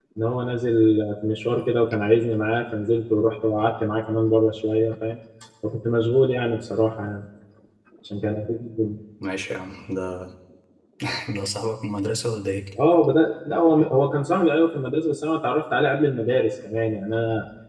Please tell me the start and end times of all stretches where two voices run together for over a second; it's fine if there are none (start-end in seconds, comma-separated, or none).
none